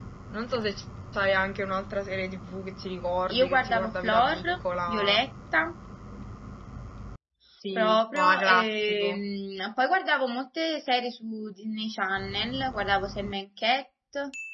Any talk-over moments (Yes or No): Yes